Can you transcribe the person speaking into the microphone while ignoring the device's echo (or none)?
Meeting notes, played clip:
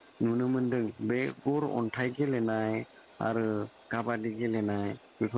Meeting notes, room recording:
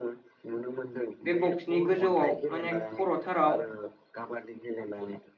बे बक्सनि गोजौआव माने खर'थाराव